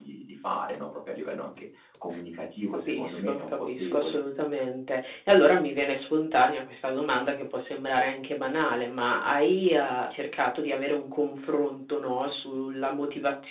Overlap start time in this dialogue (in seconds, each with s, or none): 2.9 s